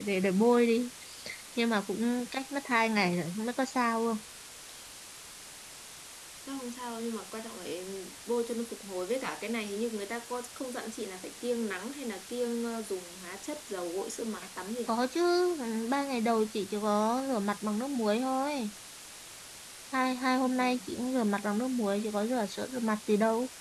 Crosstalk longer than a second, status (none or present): none